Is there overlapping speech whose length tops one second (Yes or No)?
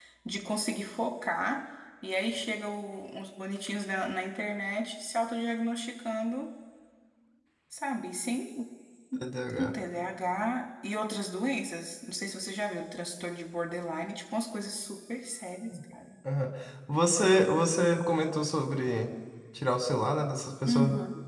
No